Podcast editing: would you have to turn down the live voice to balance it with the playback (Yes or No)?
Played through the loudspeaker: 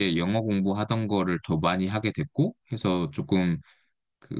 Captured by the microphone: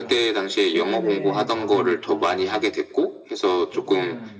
No